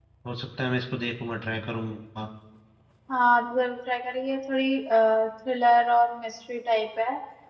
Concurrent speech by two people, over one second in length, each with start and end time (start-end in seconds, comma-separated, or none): none